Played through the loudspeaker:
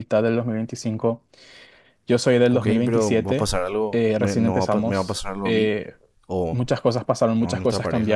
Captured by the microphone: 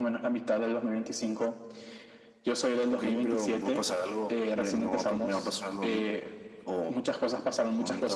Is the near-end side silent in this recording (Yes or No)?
Yes